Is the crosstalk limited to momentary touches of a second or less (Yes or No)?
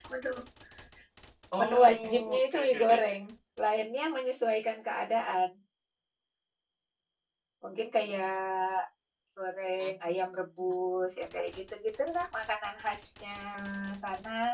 No